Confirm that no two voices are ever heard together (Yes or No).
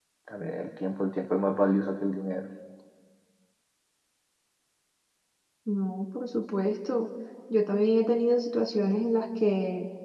Yes